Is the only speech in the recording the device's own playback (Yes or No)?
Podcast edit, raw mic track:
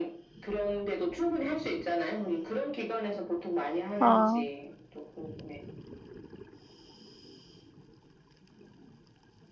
No